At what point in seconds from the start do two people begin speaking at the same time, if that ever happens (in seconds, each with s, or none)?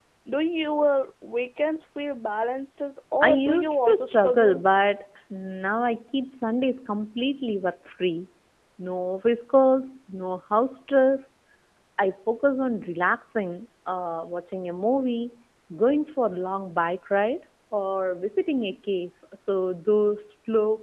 3.2 s